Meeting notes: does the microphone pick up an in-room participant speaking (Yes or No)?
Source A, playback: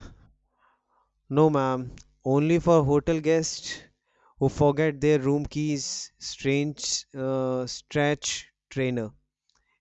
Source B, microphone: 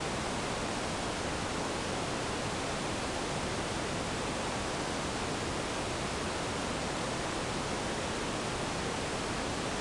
No